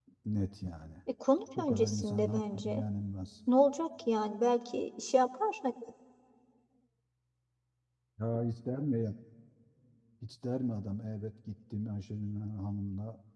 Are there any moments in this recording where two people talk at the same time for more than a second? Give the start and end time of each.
1.6-2.8

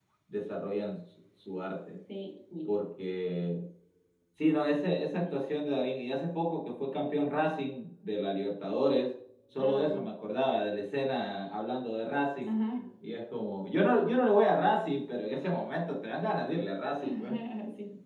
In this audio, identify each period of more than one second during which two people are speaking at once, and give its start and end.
none

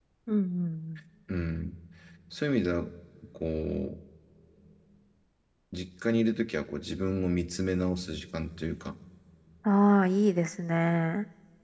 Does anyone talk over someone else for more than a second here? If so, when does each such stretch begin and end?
none

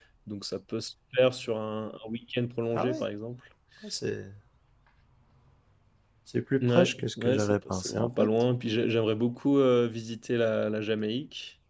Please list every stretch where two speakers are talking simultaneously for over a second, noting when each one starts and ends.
6.6-8.3

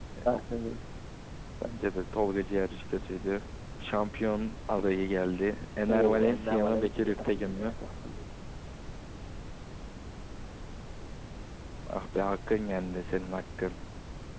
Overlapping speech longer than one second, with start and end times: 5.9-7.7

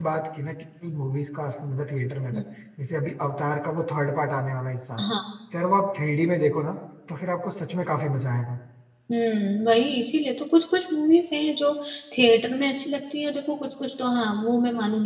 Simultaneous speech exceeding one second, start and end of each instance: none

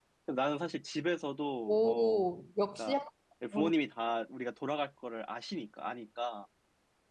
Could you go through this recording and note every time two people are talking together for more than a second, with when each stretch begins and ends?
none

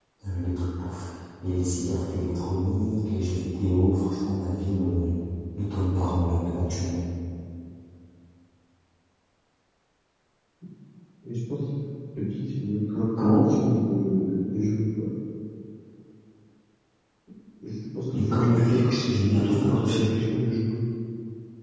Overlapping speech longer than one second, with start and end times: 18.3-20.1

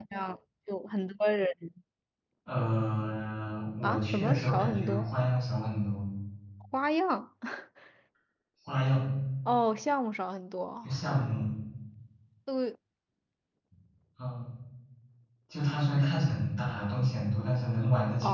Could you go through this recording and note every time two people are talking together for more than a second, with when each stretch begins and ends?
3.8-5.1

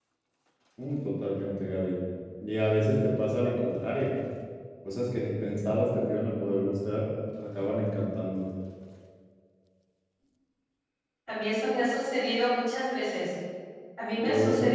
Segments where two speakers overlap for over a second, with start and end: none

